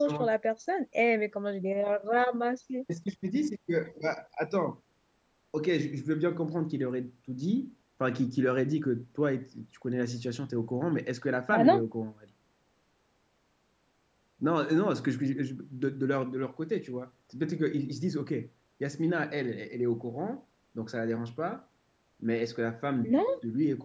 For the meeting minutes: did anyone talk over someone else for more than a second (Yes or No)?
No